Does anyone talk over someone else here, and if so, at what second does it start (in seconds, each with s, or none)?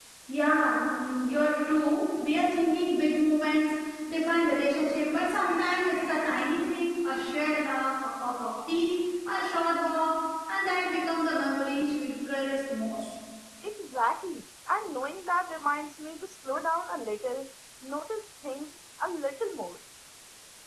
none